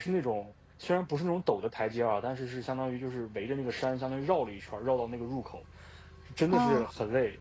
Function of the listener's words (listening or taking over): listening